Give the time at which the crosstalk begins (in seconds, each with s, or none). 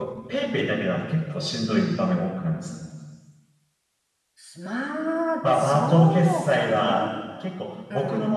5.5 s